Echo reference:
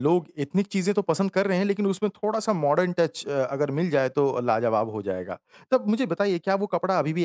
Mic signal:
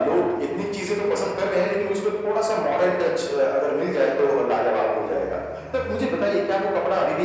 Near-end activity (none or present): none